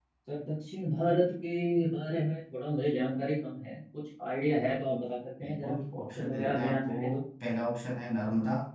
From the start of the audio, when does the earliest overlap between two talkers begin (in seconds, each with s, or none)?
5.4 s